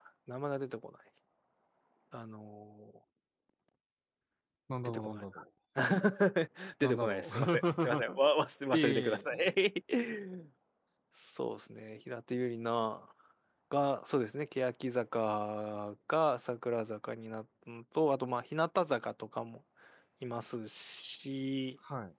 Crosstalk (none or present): present